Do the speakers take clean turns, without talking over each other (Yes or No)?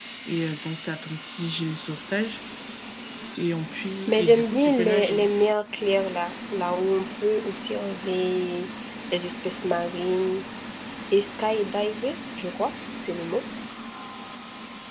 No